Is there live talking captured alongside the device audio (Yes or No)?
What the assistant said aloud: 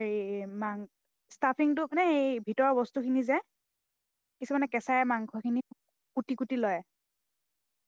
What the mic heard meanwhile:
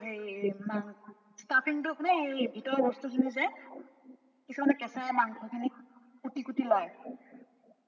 No